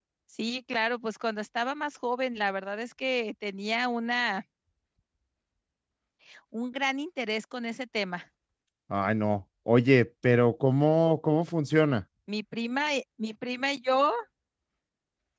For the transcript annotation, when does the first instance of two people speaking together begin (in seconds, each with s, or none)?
none